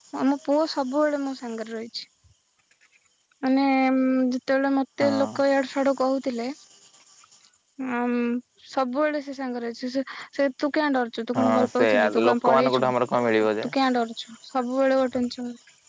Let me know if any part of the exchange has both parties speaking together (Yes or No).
Yes